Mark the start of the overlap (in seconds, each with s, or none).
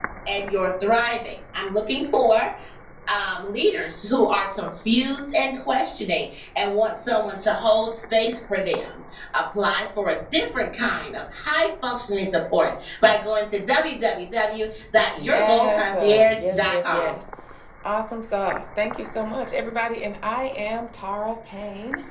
15.2 s